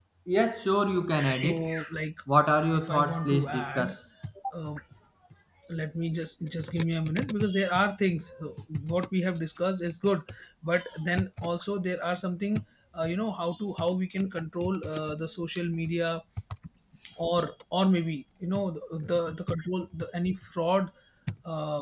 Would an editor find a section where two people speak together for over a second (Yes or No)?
Yes